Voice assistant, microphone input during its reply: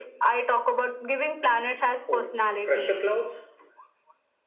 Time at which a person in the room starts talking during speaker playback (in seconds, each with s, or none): 2.1 s